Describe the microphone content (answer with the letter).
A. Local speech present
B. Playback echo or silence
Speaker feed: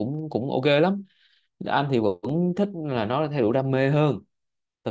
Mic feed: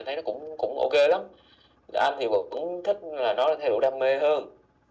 B